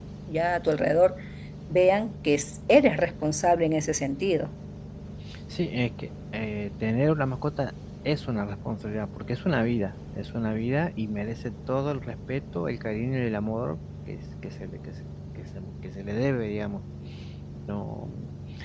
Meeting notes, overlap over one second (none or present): none